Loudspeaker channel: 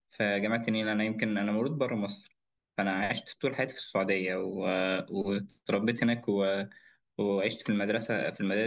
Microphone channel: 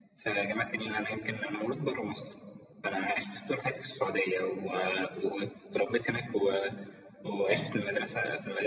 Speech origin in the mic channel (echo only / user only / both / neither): both